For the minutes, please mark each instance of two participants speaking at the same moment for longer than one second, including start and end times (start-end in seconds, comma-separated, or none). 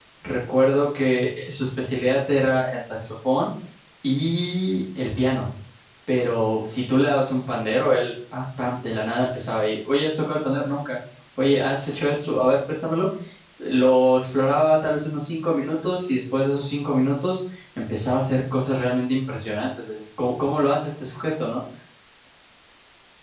none